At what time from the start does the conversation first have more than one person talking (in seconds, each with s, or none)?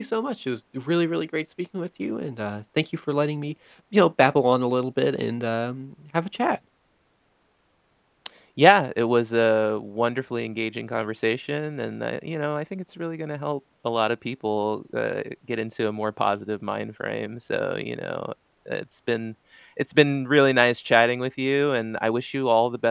none